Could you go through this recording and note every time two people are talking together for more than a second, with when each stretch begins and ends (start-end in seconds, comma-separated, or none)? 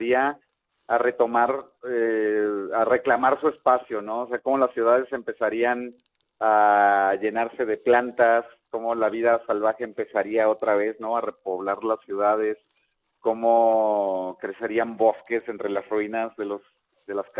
none